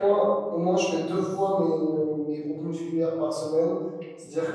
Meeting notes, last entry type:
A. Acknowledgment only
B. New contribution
A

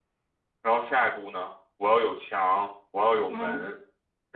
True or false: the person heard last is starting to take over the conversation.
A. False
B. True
A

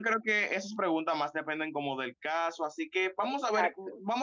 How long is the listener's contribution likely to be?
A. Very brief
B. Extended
A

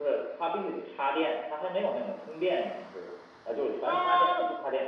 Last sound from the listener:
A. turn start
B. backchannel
A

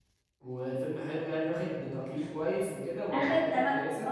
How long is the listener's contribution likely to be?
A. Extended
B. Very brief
A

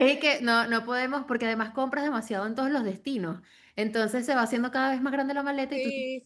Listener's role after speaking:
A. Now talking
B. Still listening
A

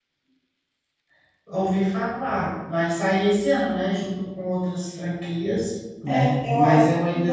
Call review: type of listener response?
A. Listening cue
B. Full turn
B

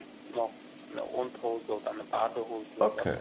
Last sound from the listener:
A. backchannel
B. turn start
B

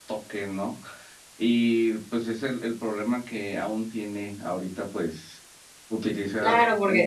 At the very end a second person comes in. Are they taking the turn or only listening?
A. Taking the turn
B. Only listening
A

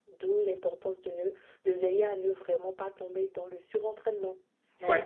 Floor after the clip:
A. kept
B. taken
A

